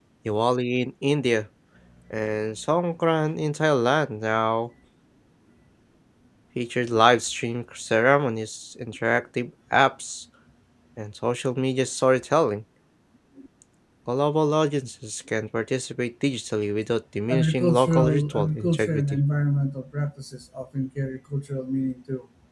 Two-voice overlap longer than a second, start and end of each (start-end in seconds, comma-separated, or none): 17.3-19.2